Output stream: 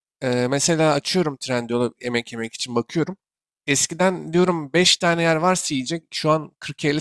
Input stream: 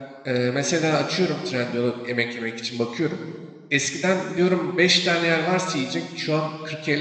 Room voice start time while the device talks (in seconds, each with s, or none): none